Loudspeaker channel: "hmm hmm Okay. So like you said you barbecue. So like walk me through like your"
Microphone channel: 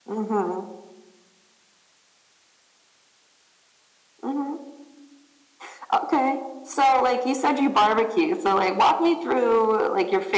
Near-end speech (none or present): none